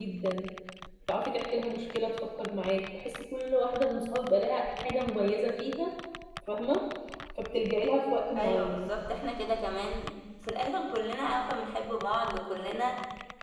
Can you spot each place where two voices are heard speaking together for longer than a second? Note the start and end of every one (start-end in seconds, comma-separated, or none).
none